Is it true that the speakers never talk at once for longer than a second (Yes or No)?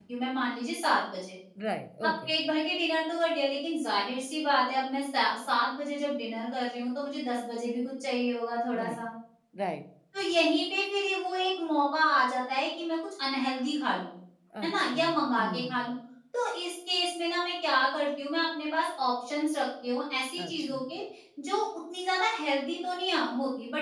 Yes